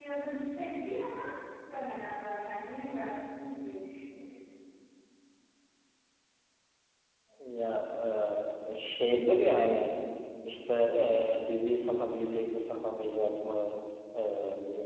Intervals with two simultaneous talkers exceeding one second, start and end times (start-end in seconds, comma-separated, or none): none